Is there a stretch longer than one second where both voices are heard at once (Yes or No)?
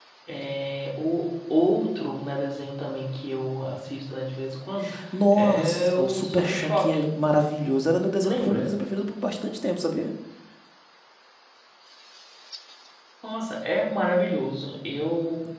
Yes